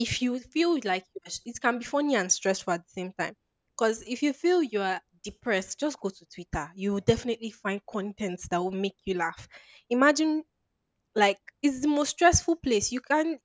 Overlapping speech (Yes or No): No